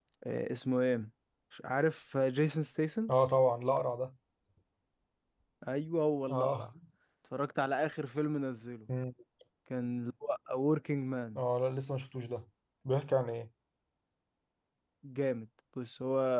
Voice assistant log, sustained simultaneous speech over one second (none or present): none